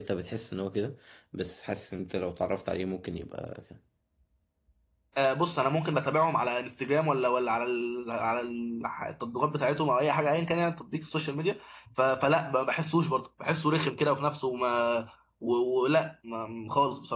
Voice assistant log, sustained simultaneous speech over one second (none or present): none